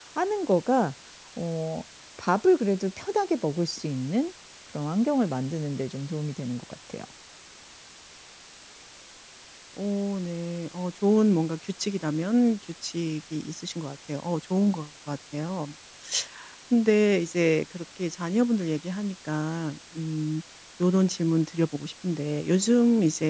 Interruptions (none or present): none